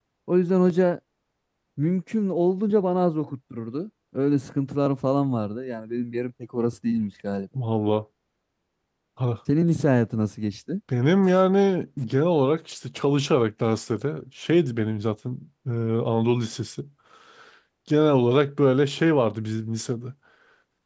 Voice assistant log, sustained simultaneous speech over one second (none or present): none